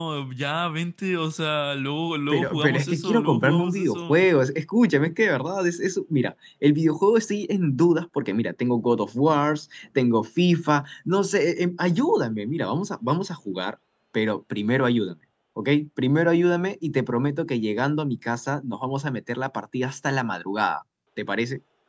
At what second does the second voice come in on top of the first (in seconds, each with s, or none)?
2.3 s